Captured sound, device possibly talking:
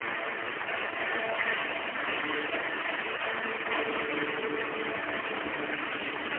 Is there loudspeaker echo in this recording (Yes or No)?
No